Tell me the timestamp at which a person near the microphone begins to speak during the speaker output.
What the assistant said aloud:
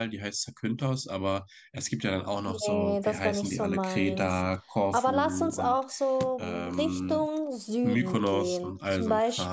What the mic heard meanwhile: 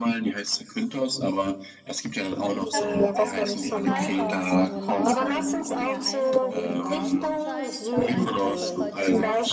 3 s

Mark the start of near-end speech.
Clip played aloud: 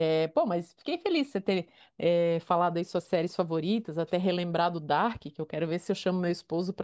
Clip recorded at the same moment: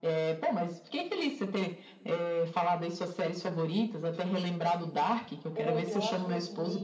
6 s

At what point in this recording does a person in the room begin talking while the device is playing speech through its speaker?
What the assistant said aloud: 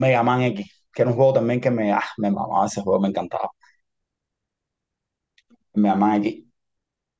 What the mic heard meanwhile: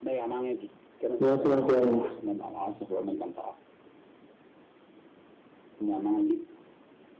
1 s

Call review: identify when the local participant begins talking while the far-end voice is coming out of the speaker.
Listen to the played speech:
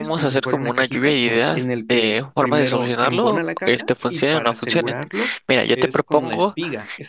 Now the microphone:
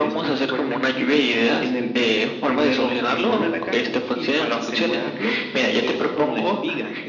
none

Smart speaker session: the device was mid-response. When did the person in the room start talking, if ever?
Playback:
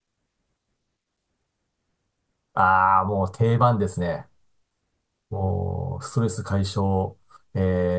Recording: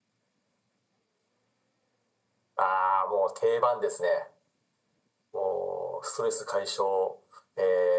none

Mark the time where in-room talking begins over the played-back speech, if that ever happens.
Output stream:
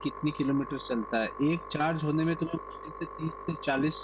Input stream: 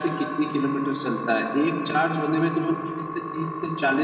none

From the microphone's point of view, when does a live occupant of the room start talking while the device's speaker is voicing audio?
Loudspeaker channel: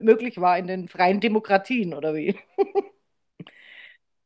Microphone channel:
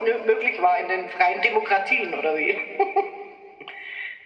none

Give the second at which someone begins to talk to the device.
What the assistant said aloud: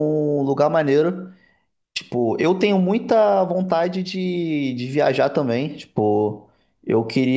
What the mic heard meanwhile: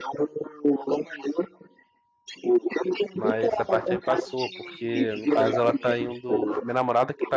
3 s

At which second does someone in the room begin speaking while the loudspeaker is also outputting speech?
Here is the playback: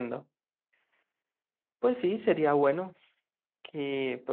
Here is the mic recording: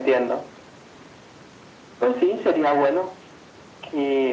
none

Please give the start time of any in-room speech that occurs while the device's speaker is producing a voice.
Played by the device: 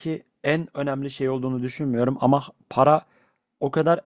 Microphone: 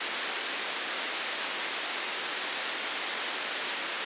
none

